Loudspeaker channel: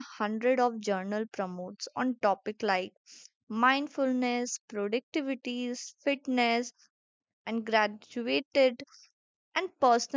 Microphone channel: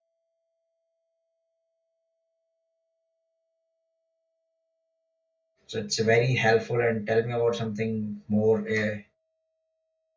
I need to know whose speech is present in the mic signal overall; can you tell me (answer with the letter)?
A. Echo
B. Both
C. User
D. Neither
C